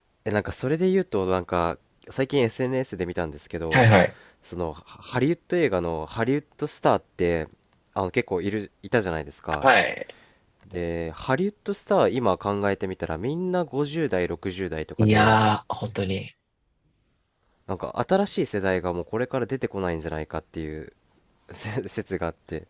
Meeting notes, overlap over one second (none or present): none